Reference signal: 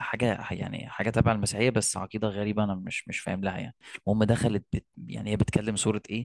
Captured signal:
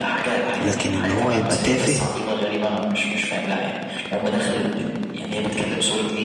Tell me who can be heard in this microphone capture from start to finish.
both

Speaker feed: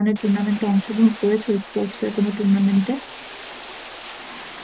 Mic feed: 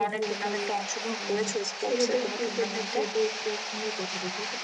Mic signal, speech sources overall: both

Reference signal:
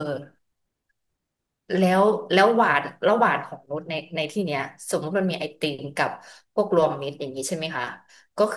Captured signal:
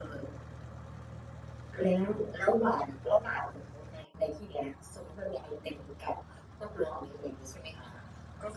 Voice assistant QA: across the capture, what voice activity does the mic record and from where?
echo only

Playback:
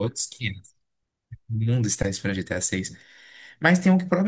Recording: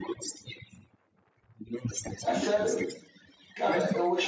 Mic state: both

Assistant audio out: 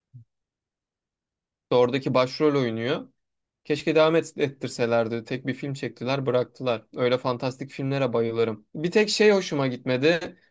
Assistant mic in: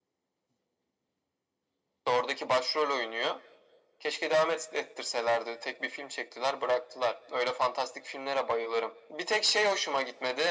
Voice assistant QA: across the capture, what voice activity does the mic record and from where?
echo only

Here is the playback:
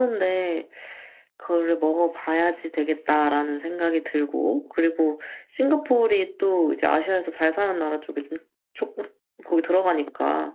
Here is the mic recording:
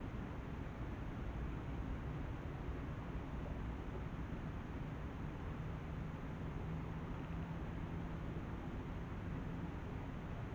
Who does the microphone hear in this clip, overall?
neither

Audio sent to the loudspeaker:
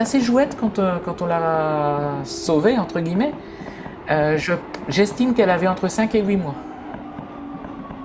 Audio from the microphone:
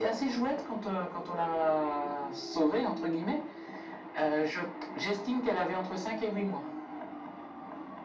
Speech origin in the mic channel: echo only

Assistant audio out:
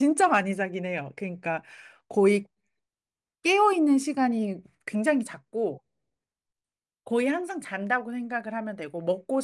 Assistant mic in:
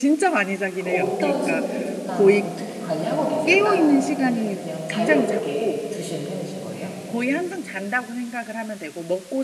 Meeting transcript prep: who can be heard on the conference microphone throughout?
both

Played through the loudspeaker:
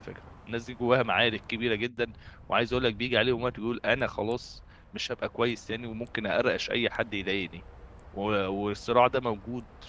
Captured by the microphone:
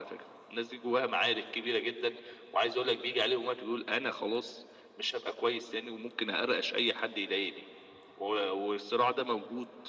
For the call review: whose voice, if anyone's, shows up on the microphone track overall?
echo only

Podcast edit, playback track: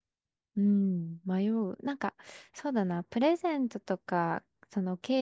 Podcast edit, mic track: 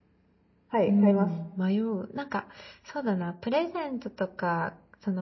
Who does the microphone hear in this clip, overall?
both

